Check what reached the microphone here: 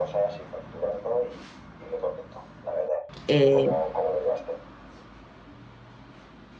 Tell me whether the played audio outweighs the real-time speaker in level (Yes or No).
No